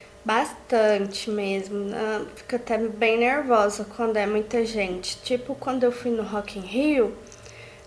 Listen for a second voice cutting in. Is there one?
No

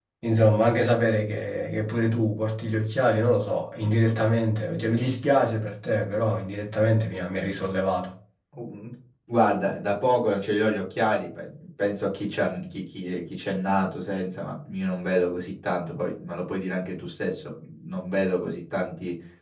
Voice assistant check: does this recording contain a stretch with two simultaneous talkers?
No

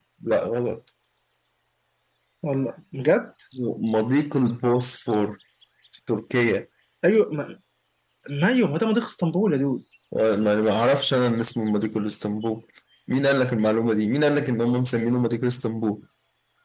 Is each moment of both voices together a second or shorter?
Yes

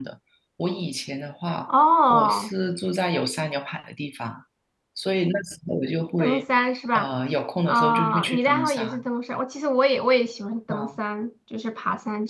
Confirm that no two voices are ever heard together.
No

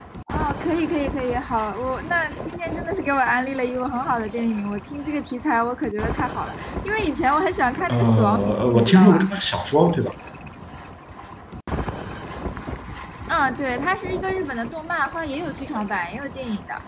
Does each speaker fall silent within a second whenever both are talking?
No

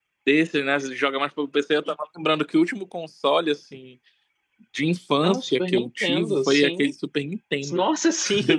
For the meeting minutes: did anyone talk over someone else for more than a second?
Yes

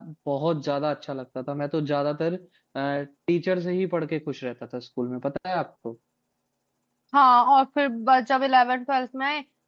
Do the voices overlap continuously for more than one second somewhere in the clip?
No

